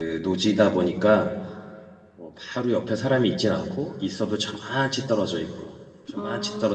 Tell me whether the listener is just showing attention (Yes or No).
Yes